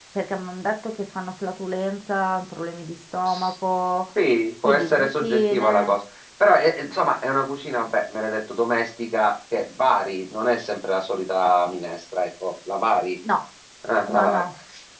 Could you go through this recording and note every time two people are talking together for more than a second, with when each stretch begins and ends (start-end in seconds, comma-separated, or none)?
4.6-6.0